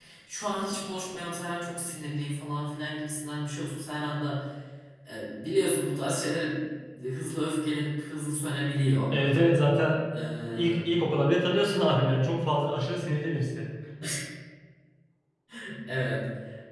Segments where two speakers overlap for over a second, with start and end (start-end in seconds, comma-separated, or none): none